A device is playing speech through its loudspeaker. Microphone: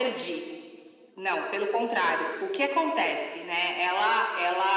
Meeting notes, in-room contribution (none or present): none